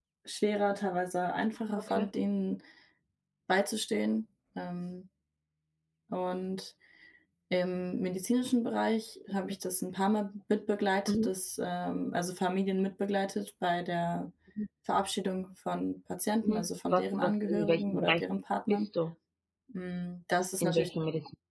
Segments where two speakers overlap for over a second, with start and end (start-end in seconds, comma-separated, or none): 16.4-18.2